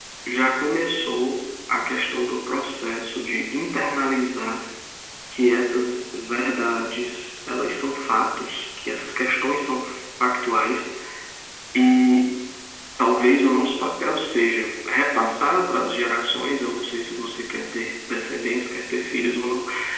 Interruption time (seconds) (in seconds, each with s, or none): none